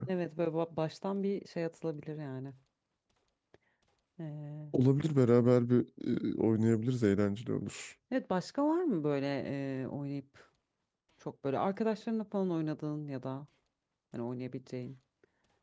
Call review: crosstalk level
none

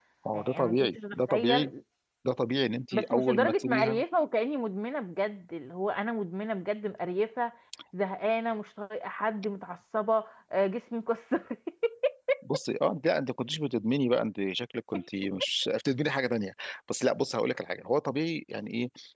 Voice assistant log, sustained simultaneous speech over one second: present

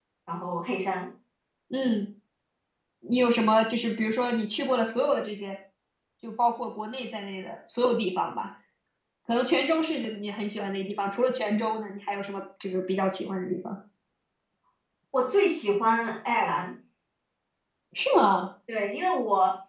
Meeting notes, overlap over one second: none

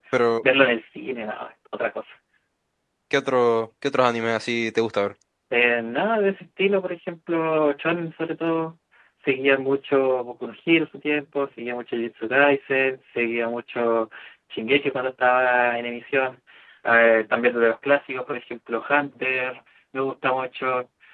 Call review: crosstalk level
none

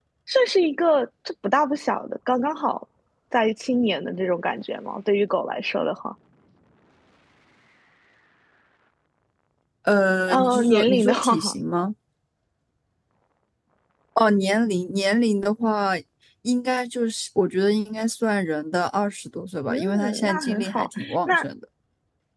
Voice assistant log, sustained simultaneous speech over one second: present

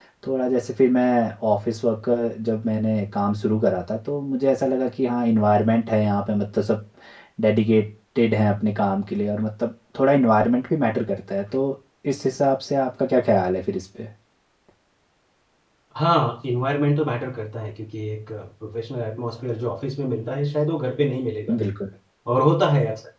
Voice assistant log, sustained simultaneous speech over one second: none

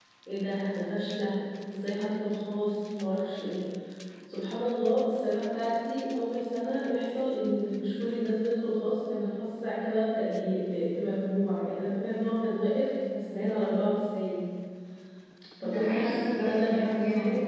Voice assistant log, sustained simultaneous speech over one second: present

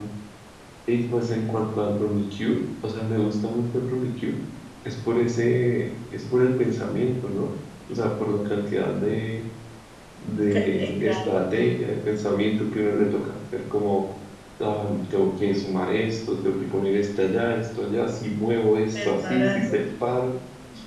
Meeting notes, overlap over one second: present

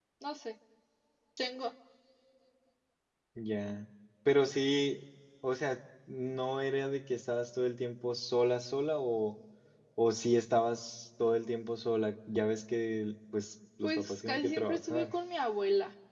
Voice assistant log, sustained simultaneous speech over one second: present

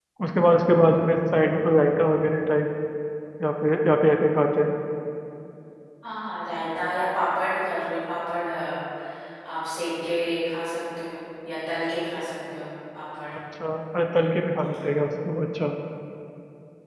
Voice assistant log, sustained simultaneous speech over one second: none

